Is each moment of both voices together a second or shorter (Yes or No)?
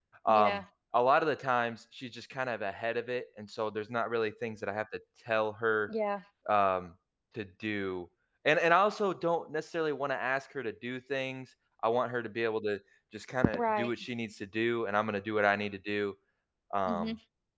Yes